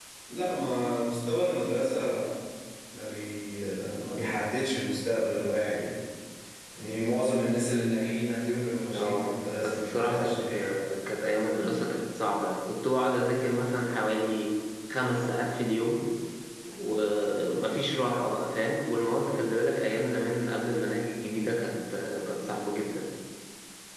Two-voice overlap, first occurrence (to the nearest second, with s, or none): 9 s